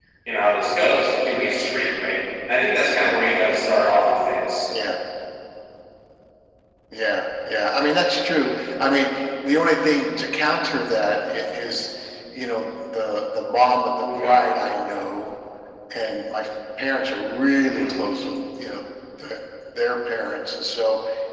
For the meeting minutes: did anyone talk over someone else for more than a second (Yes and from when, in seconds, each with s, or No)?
No